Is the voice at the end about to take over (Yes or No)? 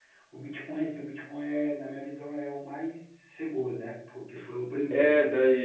Yes